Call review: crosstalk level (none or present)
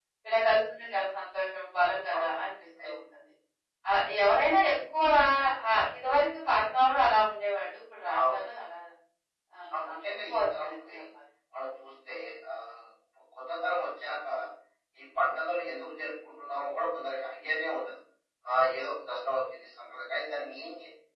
present